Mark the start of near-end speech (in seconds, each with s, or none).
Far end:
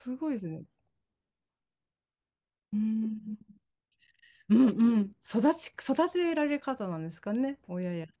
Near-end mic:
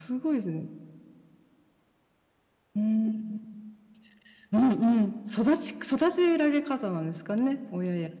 none